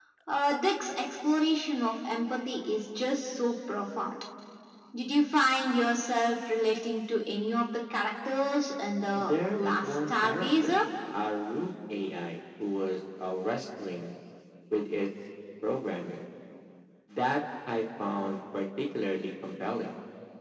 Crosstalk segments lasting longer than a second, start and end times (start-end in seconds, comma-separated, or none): 9.2-10.8